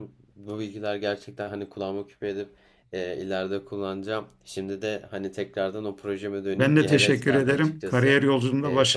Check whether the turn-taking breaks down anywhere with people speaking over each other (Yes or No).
Yes